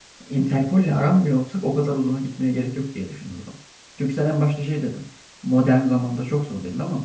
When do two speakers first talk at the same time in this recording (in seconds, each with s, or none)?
none